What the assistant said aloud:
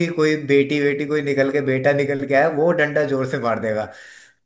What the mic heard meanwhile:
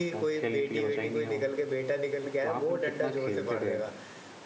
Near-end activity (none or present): present